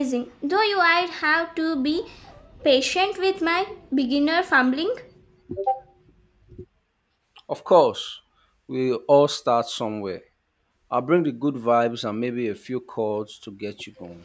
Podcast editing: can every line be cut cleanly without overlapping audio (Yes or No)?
Yes